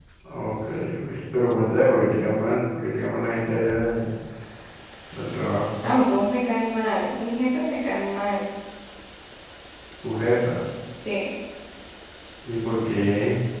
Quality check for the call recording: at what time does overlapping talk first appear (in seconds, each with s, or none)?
none